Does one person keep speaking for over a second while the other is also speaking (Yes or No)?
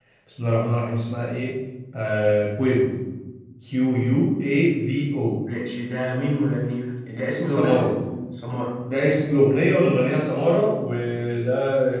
No